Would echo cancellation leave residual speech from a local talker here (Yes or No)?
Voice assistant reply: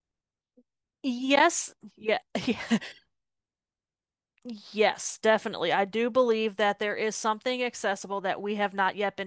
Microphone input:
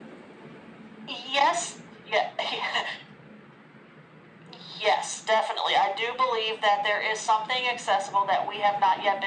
No